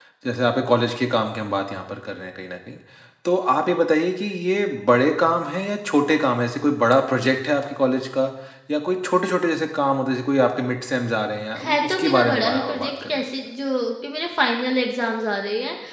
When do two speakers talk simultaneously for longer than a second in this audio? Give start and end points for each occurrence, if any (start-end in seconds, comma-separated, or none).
11.6-13.2